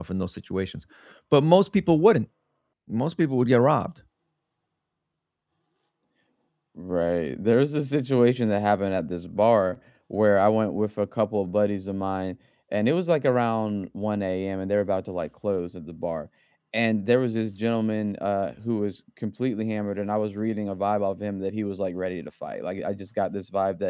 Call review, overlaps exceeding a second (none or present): none